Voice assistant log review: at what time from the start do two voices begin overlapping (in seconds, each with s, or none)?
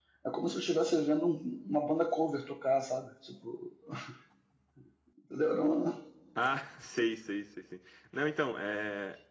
none